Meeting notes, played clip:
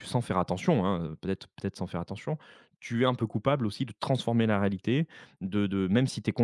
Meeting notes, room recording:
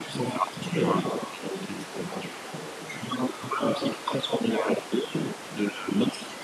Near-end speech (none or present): none